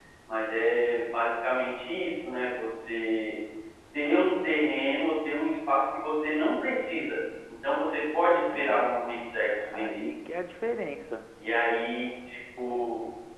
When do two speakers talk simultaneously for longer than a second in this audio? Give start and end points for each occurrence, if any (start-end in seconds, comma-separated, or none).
none